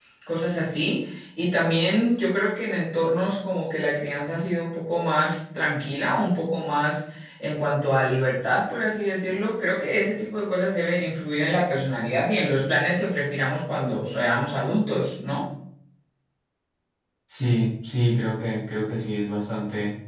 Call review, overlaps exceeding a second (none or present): none